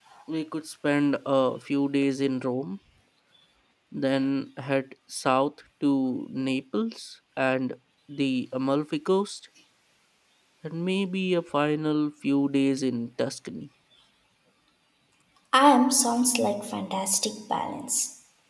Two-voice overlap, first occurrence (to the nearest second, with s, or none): none